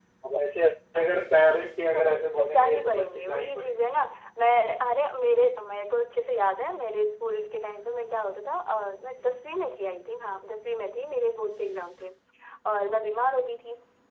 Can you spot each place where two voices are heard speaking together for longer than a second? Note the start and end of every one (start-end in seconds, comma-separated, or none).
1.9-3.9